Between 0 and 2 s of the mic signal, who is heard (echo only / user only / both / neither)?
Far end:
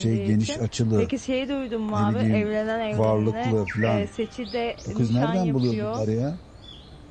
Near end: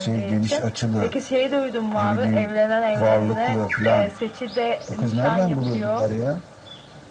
echo only